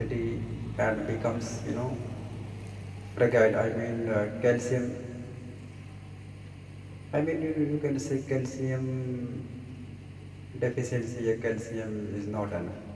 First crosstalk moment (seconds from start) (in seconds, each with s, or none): none